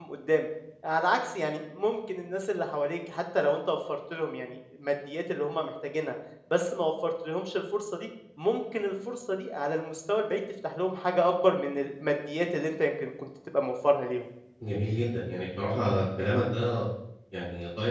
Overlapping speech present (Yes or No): No